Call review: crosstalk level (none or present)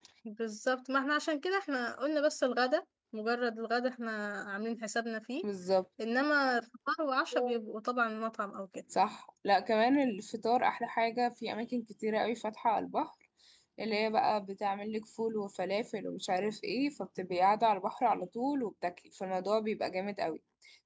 none